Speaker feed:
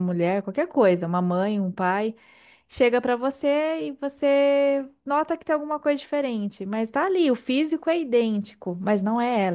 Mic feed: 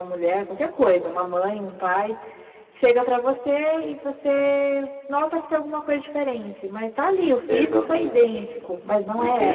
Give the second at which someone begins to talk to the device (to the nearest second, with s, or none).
7 s